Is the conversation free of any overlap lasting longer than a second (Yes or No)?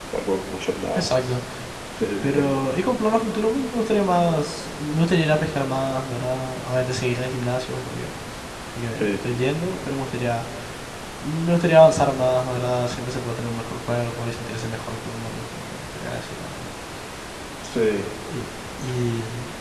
Yes